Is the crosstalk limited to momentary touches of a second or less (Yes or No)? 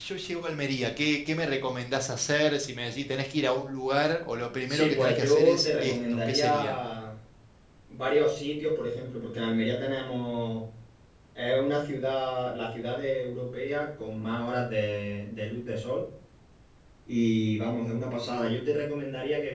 No